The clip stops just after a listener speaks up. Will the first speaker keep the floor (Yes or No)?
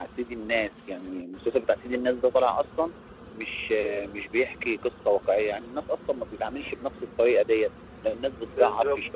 Yes